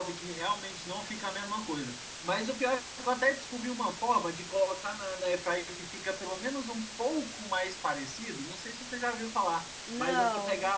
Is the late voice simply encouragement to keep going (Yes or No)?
Yes